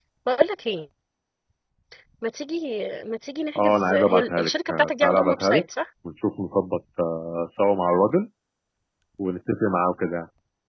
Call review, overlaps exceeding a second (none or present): present